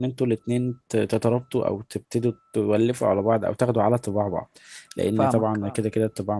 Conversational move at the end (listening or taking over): listening